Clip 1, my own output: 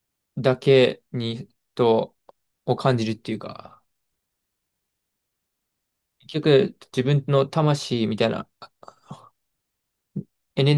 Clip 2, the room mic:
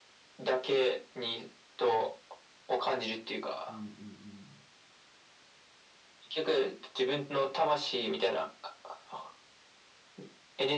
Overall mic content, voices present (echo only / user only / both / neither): both